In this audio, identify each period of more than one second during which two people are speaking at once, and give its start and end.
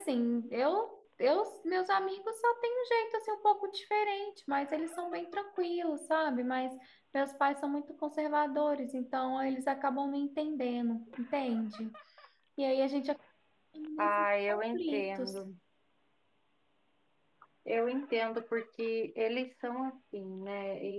14.0-15.3

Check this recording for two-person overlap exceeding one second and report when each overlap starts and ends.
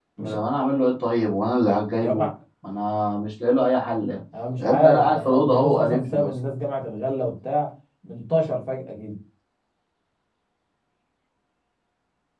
4.6-6.3

